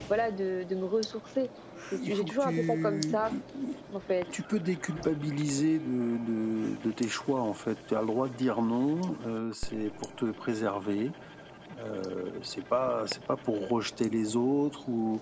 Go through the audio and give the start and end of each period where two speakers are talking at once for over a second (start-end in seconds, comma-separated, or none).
1.9-3.3